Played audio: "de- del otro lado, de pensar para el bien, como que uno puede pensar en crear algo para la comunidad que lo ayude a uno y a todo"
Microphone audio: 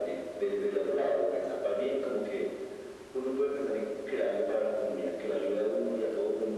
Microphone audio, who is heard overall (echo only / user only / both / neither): echo only